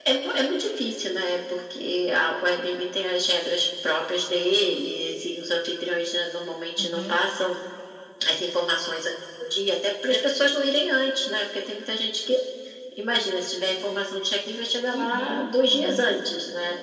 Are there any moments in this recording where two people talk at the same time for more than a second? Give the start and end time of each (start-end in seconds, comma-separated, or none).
14.9-16.2